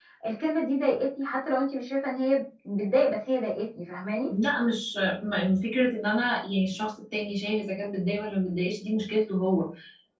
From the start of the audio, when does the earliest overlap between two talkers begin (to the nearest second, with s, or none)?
none